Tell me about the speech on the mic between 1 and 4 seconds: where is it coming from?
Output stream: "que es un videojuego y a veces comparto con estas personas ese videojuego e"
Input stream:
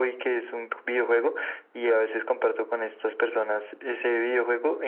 echo only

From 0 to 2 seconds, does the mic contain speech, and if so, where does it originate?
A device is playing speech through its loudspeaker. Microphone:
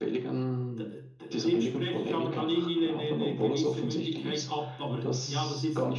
echo only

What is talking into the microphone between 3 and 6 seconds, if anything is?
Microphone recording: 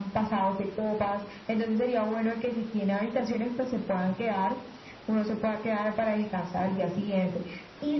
echo only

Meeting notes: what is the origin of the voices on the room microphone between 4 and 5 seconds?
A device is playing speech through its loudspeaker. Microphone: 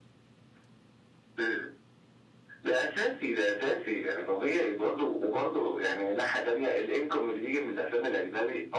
echo only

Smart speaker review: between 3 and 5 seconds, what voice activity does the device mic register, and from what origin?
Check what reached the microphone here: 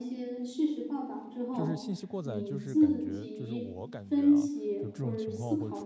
both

